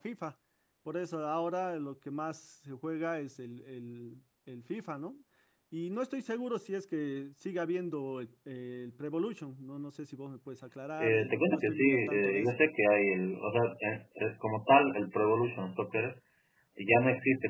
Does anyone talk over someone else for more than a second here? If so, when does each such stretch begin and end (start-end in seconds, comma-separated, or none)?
11.0-12.5